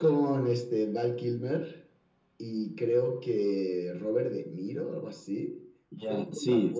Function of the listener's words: taking over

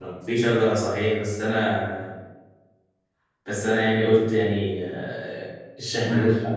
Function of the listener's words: listening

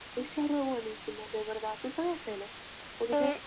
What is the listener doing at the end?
taking over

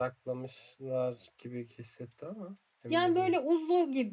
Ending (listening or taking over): taking over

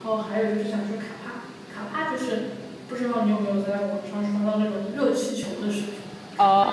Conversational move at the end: taking over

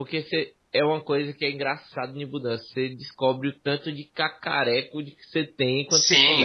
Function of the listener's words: taking over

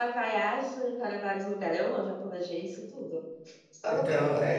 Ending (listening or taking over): taking over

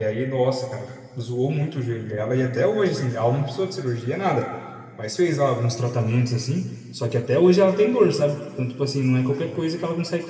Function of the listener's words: listening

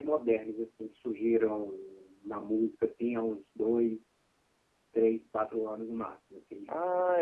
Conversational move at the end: taking over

